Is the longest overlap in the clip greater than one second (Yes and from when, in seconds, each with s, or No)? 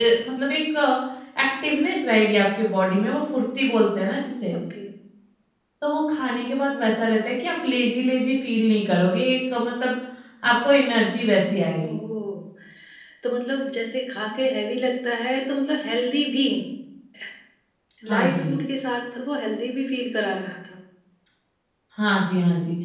No